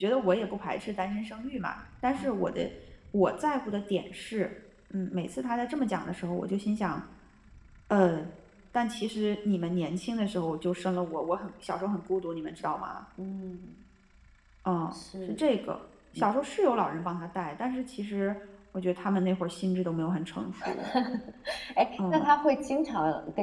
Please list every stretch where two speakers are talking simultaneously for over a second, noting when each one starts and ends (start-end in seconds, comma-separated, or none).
none